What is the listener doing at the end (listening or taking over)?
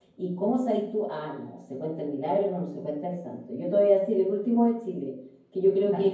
listening